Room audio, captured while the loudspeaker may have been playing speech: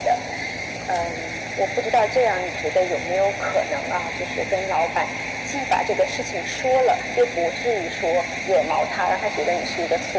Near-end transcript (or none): none